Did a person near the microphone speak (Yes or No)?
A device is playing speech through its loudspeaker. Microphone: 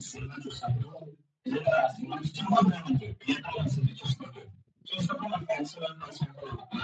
No